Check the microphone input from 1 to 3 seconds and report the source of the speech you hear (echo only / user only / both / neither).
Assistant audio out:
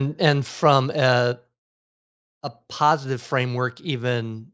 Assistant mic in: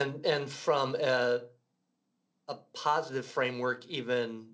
echo only